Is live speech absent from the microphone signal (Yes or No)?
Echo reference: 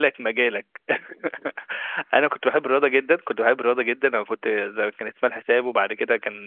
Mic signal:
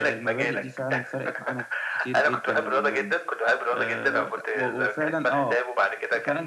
No